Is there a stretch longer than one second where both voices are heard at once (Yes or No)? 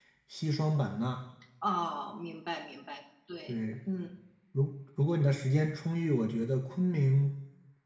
No